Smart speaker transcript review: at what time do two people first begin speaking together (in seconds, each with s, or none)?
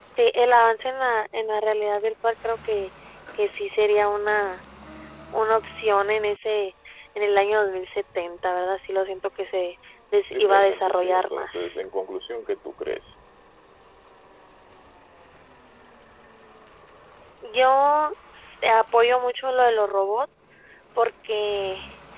10.2 s